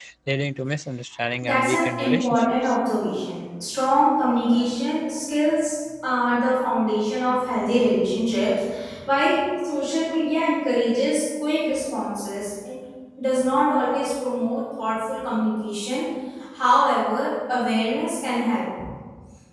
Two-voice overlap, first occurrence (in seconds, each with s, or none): 1.4 s